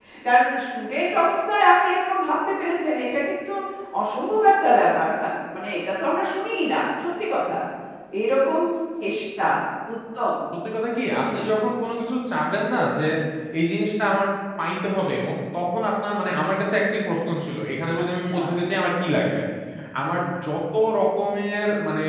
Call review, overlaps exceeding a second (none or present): none